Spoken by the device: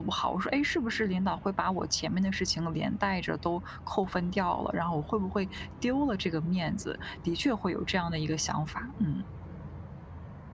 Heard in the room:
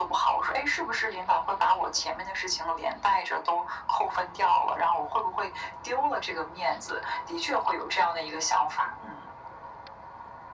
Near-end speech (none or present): none